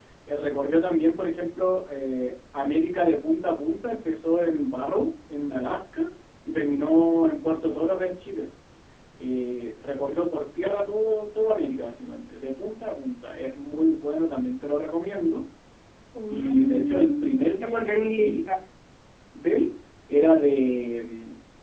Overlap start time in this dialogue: 16.3 s

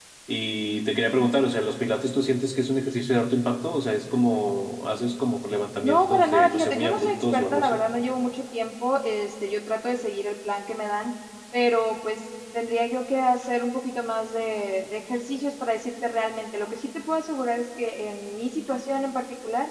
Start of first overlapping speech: 5.8 s

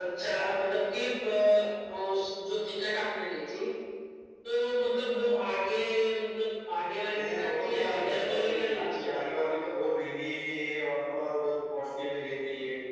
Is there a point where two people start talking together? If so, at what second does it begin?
7.1 s

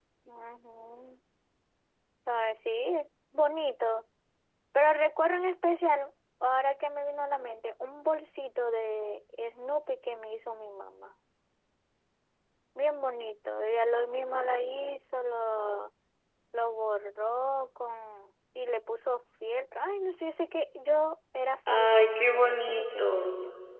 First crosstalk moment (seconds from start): 21.7 s

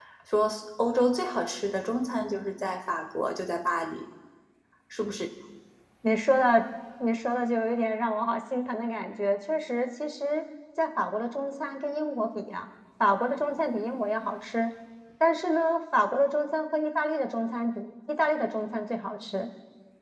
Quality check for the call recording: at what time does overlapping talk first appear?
none

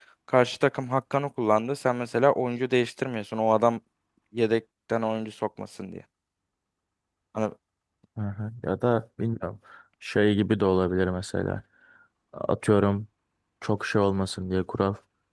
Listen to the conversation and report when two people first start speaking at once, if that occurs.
none

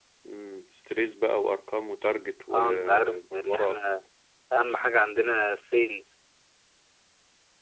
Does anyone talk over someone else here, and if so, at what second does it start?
2.5 s

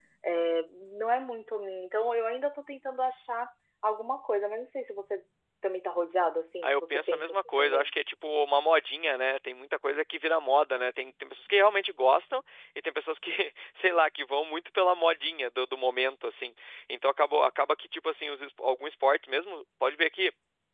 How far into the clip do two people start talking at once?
6.6 s

